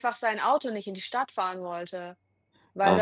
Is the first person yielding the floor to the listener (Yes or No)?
Yes